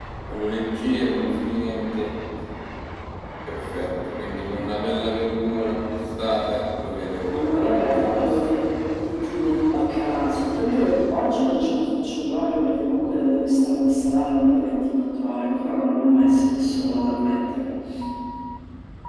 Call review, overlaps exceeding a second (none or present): present